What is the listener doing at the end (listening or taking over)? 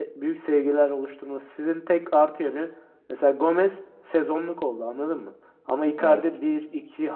listening